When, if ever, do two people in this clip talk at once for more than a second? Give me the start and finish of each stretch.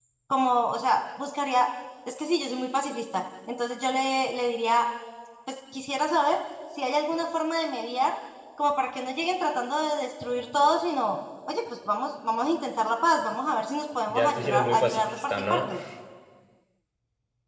14.1-15.7

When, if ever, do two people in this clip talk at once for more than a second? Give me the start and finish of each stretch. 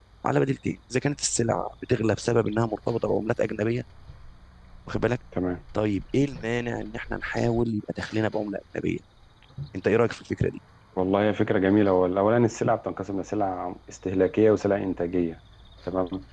none

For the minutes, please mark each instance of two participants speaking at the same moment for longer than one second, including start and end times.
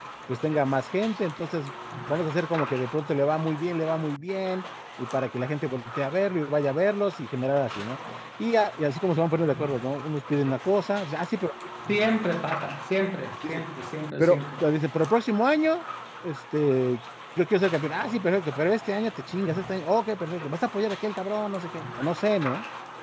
none

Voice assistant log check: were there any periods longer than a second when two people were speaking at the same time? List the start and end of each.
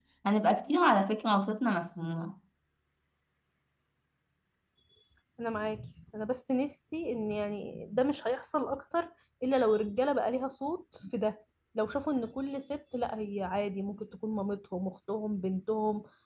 none

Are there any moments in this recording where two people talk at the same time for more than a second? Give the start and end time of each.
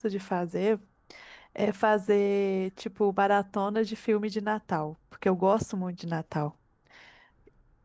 none

